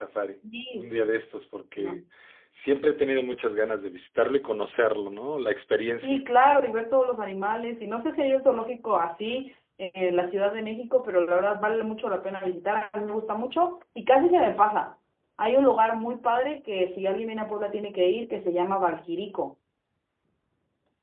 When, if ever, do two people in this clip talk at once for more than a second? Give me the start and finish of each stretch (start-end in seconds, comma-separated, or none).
none